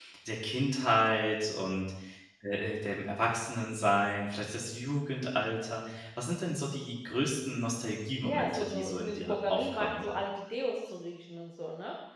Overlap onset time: 8.2 s

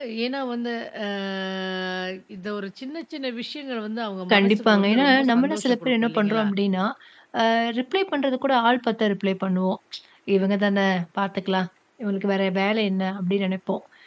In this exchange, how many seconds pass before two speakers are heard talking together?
4.3 s

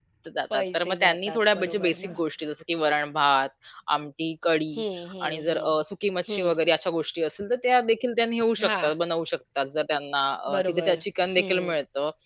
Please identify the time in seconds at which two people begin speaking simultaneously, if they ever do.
0.5 s

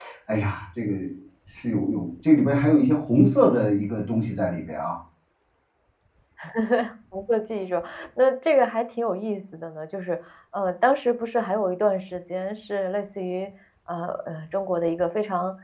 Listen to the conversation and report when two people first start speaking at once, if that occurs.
none

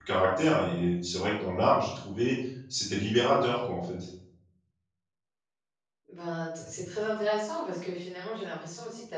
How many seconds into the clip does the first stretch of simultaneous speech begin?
none

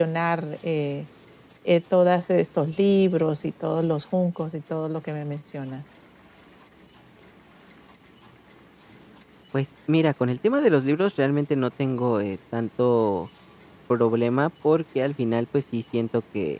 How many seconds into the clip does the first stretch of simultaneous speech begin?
none

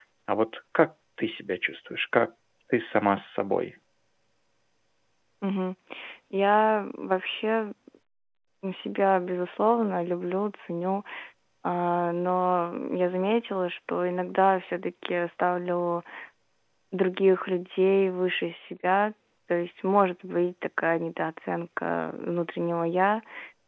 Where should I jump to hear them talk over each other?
none

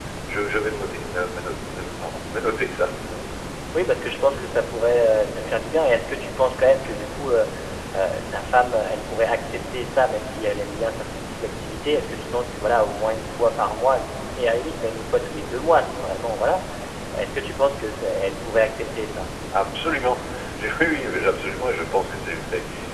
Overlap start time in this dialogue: none

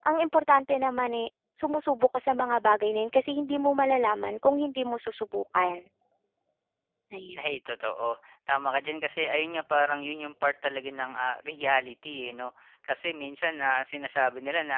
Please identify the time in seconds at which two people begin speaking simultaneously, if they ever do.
none

